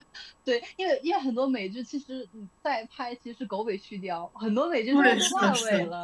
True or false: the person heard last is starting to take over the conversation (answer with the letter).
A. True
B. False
A